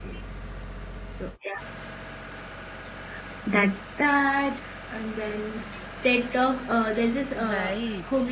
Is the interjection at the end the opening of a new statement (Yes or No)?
No